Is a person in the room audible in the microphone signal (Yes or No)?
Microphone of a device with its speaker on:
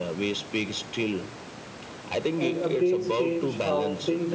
Yes